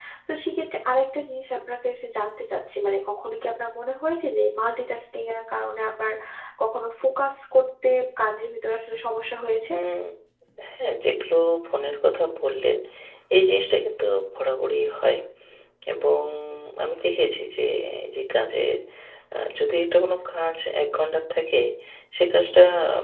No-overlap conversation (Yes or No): Yes